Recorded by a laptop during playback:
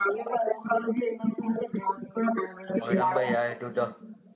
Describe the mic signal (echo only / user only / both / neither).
both